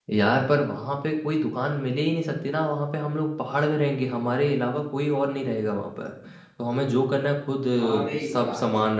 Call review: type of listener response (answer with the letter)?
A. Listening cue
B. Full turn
A